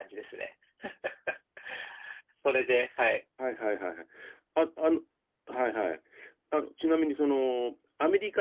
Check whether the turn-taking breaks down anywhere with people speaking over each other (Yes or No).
No